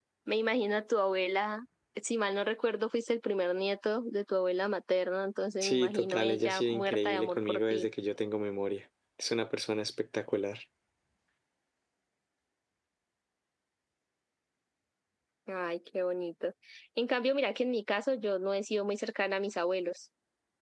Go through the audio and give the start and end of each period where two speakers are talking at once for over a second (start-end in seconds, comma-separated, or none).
5.6-7.9